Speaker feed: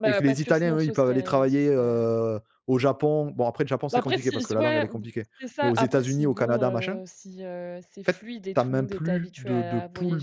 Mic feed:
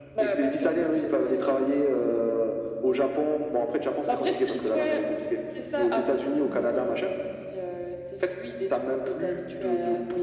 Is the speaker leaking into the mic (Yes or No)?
Yes